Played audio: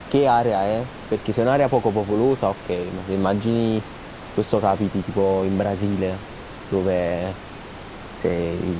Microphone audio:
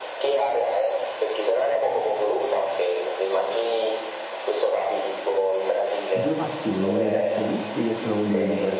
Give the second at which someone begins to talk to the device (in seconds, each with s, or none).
6.1 s